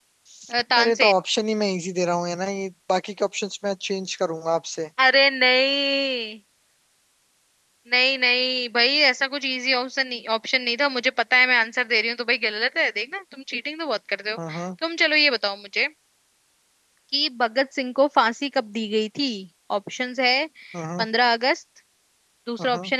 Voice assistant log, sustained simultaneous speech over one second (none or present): none